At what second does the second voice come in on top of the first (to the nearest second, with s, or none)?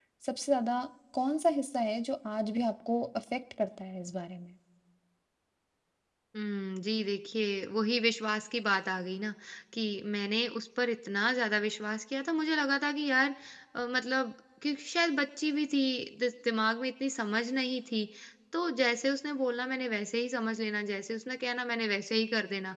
none